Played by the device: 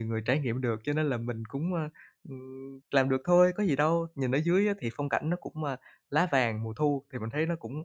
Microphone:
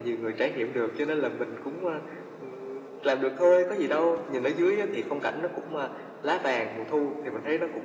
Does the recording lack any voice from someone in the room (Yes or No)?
Yes